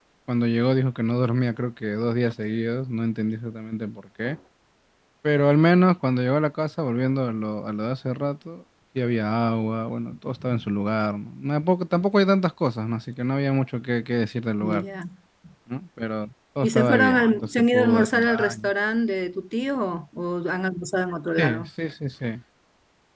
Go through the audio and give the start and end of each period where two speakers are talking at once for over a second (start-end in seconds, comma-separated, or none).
16.6-18.7